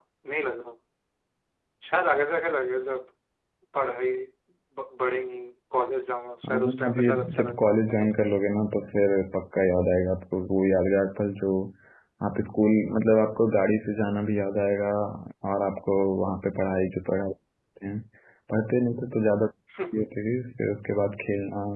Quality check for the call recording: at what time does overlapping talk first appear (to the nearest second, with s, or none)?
6 s